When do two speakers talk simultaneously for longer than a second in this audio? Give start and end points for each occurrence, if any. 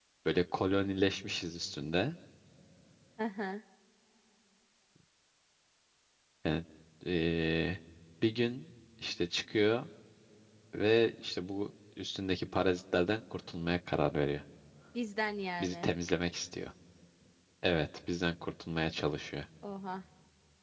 none

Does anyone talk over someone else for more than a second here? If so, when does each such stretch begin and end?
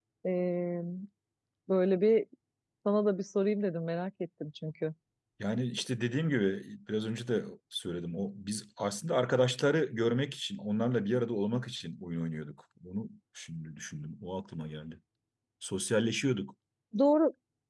none

